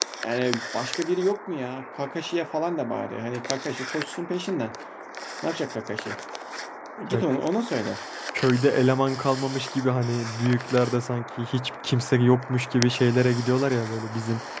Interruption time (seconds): none

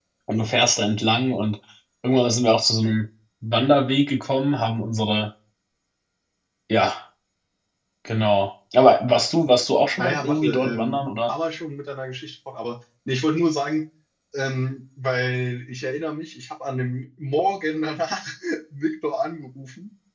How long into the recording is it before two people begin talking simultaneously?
10 s

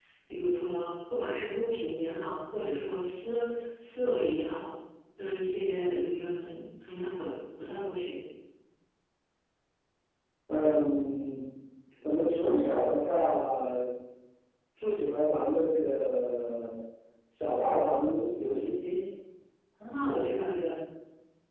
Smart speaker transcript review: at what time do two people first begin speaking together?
none

